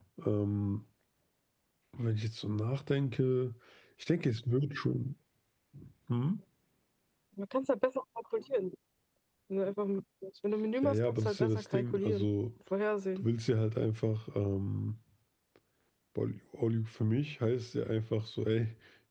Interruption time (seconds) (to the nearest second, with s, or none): 11 s